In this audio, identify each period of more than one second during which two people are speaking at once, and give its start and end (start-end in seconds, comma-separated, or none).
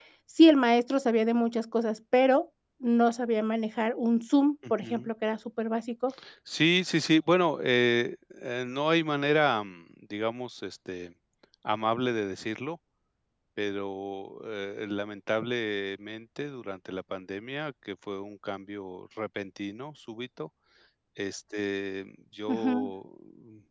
none